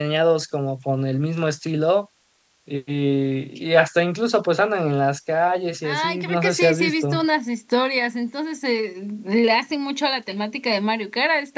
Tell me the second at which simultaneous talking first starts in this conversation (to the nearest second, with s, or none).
6 s